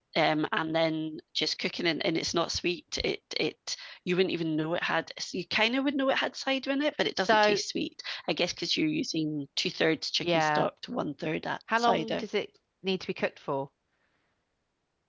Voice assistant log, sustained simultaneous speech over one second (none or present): none